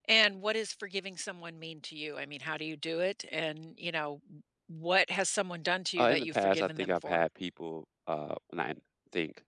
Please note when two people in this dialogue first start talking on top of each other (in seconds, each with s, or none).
6.0 s